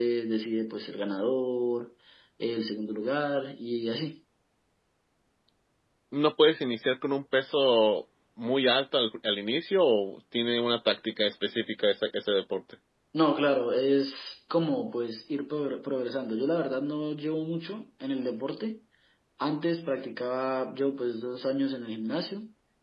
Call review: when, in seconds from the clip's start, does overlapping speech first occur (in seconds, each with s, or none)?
none